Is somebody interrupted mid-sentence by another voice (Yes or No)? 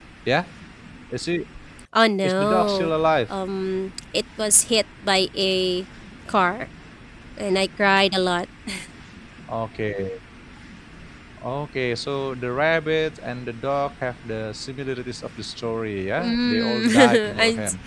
Yes